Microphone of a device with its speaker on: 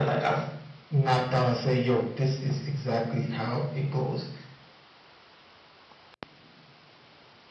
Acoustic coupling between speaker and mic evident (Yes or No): Yes